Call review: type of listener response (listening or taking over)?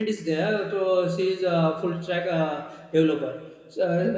listening